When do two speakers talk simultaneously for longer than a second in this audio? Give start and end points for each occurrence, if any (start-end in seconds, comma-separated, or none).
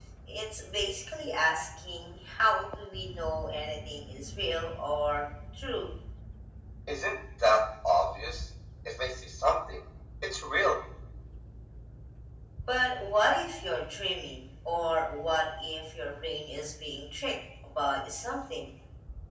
none